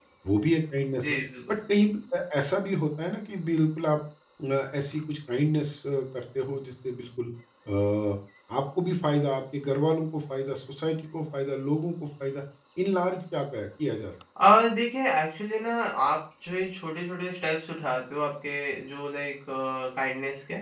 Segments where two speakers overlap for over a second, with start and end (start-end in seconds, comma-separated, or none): none